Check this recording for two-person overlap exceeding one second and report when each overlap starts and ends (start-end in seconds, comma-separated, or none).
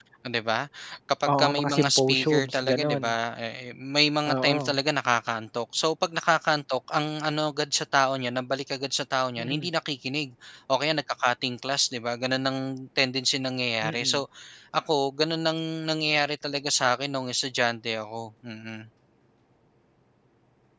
1.2-3.1